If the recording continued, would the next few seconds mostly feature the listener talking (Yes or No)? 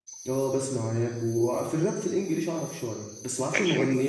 No